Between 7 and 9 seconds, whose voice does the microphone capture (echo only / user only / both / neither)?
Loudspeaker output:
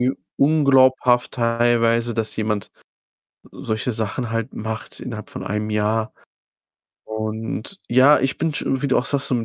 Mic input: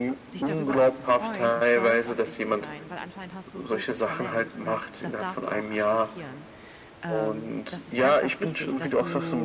both